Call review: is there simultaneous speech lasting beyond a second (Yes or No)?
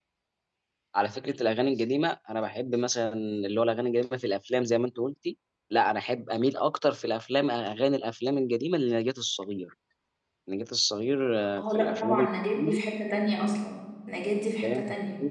Yes